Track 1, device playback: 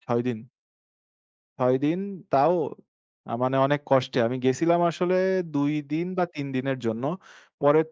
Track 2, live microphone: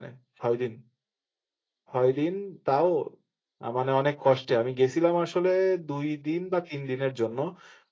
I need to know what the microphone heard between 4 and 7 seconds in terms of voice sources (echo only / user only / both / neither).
echo only